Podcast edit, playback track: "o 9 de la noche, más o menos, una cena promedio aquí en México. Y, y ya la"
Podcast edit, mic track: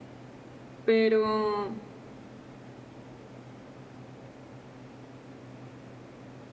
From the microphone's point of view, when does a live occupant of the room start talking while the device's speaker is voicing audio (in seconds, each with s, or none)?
0.8 s